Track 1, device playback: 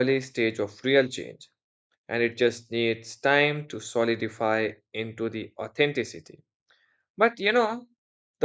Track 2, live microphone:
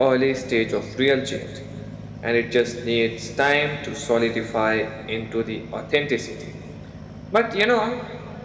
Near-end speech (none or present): none